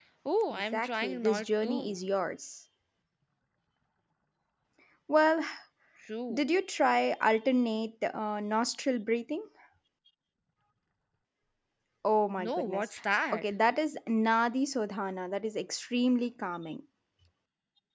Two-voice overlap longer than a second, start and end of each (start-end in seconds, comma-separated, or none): 0.5-2.0